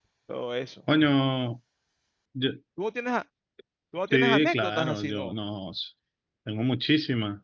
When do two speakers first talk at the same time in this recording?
4.1 s

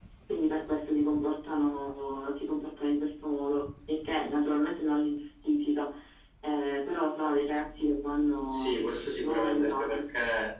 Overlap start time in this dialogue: 8.5 s

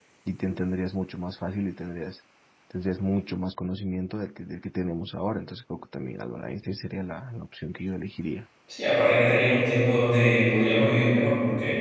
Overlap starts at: none

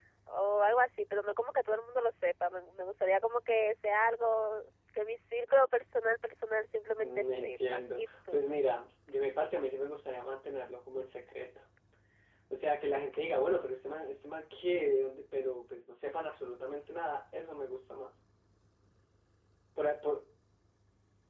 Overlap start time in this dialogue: 7.0 s

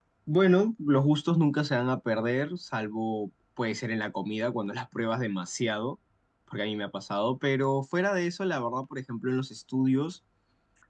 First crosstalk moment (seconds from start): none

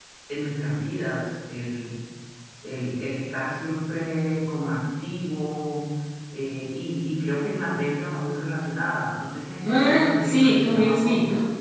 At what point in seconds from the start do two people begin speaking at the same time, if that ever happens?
9.6 s

